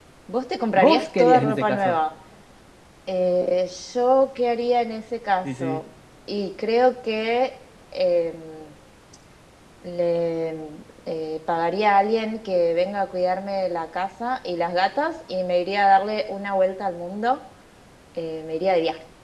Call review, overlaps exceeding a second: present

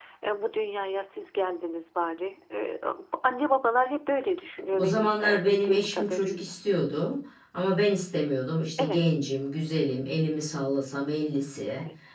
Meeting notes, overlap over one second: present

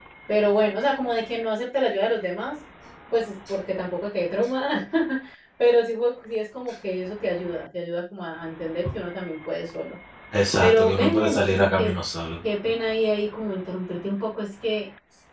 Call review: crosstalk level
present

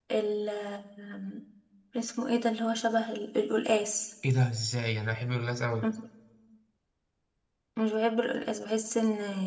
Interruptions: none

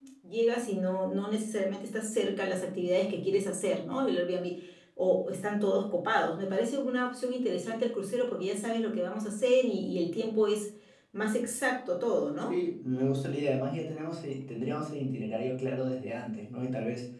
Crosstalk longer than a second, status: none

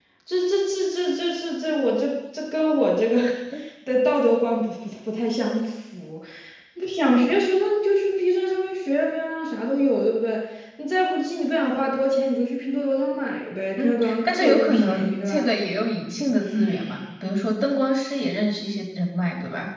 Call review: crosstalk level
present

